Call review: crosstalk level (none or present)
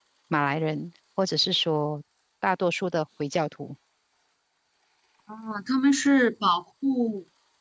none